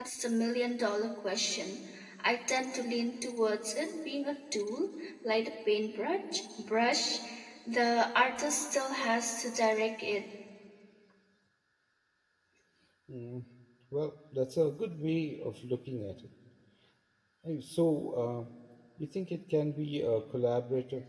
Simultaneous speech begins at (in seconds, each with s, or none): none